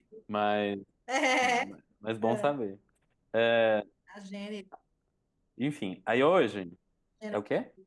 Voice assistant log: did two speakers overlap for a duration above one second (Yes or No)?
No